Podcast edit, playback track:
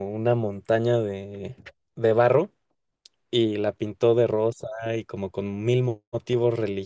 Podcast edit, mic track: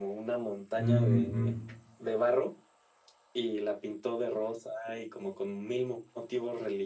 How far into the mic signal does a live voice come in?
0.8 s

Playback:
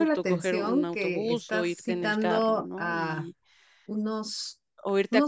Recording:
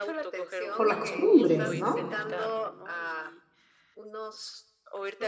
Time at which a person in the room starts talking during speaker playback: 0.7 s

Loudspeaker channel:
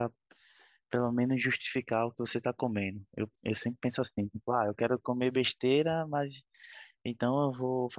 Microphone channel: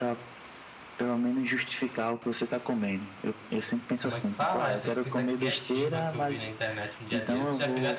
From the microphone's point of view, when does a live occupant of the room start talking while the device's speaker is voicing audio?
4.0 s

